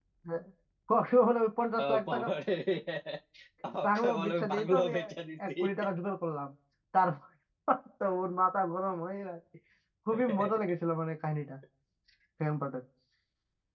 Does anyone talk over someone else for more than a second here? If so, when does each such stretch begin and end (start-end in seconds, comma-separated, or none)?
3.9-5.1